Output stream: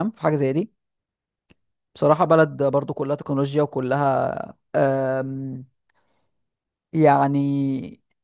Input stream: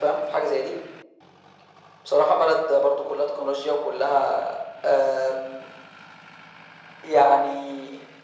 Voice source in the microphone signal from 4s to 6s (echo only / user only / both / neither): echo only